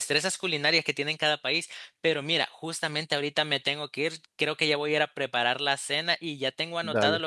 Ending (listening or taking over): listening